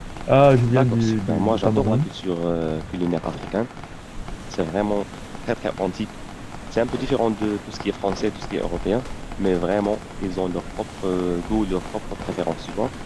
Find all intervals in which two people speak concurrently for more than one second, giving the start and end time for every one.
0.7-2.1

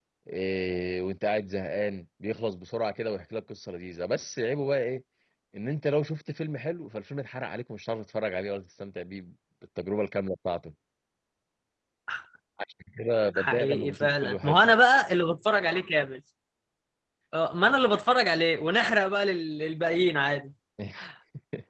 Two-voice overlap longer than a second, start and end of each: 13.3-14.6

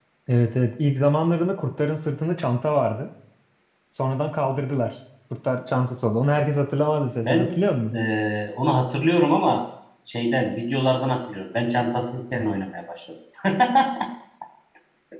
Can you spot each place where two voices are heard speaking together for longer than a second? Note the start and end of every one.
none

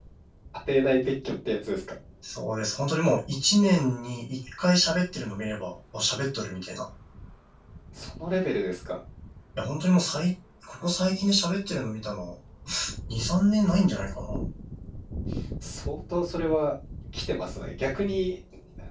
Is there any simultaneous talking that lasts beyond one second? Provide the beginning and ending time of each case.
none

